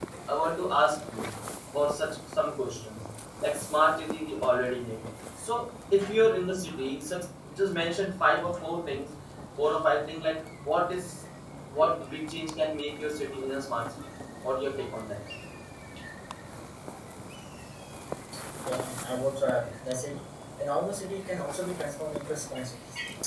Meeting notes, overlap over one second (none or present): none